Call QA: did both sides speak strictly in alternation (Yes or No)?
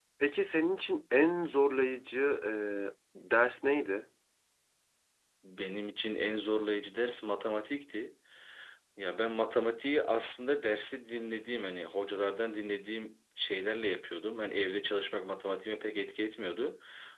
Yes